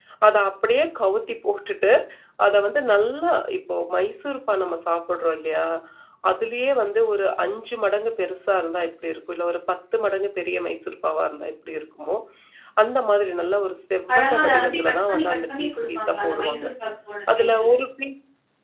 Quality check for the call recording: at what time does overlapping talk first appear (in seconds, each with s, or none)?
14.1 s